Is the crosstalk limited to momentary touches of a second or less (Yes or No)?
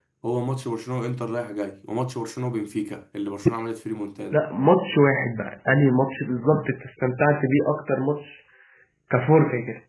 Yes